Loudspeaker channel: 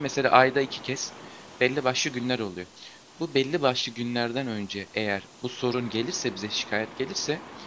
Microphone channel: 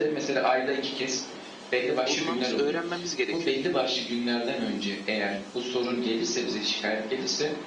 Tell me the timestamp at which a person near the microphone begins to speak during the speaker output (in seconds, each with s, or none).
2.0 s